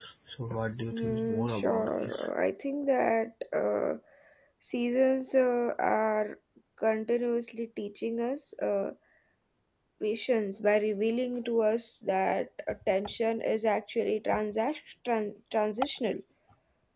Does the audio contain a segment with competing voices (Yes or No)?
Yes